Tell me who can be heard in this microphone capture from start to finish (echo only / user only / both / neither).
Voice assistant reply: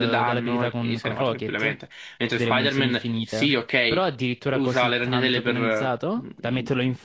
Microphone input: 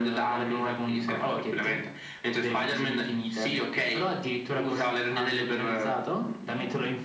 echo only